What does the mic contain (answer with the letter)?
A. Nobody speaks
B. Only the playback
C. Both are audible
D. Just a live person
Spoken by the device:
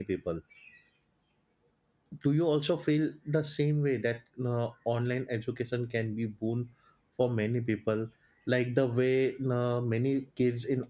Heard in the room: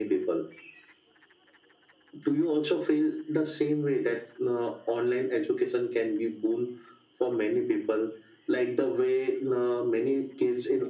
B